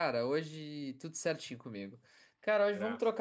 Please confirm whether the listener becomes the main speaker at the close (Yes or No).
No